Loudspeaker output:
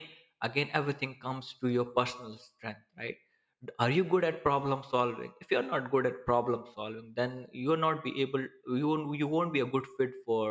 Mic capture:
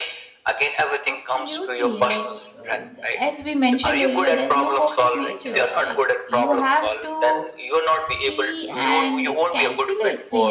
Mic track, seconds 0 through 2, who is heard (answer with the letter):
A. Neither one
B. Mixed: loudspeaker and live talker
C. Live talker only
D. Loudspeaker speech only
B